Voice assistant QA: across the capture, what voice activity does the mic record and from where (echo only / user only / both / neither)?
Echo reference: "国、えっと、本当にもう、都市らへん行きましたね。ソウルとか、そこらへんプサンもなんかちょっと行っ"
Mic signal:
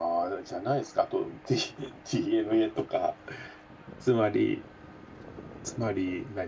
user only